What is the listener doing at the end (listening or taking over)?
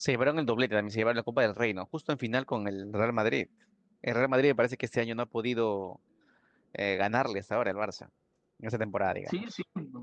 taking over